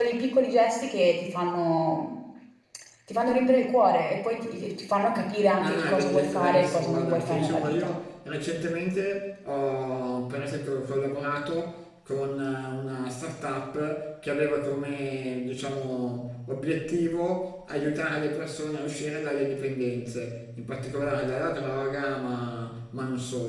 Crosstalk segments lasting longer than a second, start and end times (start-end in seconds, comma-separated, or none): 5.6-7.9